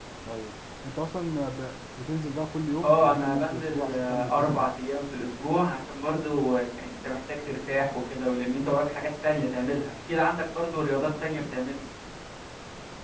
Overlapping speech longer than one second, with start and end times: 2.8-4.7

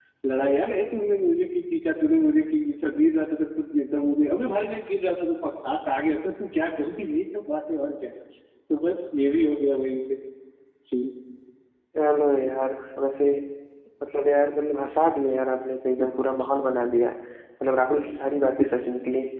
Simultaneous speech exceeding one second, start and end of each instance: none

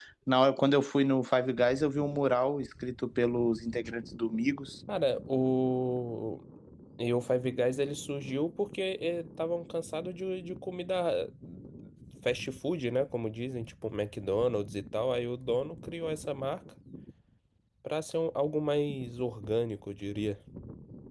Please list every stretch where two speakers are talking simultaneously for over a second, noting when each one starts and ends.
none

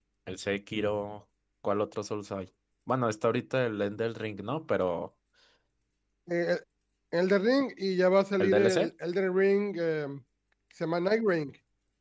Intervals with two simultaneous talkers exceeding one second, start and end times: none

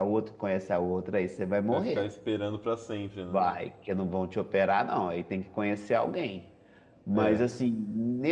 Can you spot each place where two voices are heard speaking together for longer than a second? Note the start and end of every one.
none

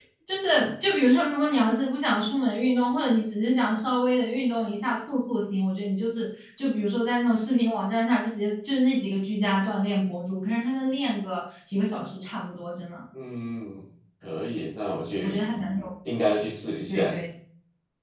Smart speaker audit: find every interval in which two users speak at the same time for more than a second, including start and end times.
none

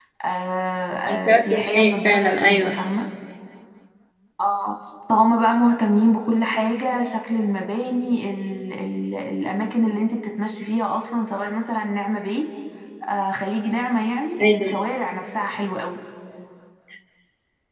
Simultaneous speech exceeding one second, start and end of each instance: 1.1-2.8

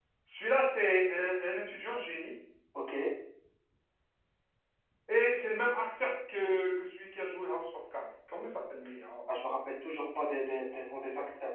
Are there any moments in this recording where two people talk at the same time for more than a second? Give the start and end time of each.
none

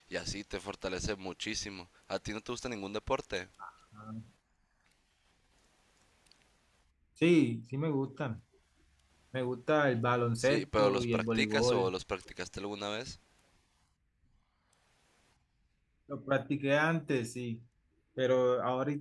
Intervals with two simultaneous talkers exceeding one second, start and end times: 10.4-11.9

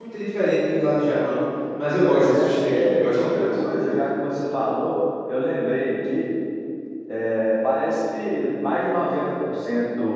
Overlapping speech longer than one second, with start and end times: 2.0-3.5

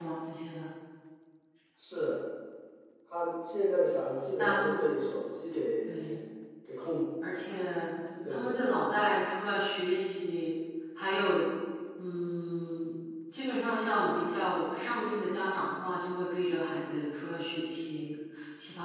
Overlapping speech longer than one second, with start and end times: none

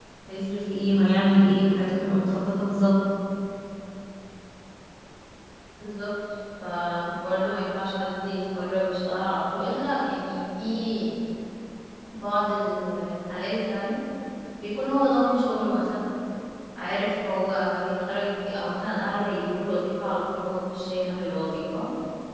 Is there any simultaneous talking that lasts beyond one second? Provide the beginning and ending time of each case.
none

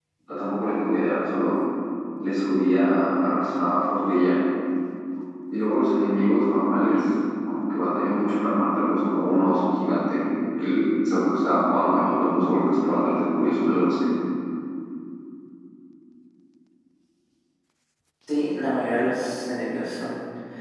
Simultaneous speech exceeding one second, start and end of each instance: none

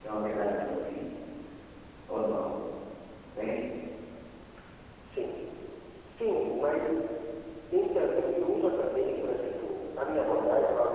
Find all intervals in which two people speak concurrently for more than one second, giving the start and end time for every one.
none

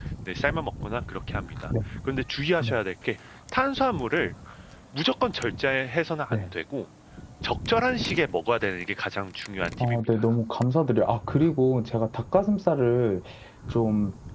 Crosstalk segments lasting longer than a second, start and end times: none

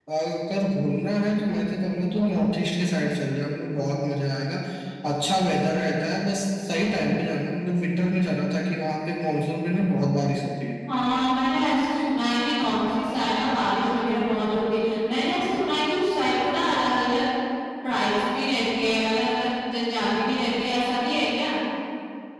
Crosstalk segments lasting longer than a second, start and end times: none

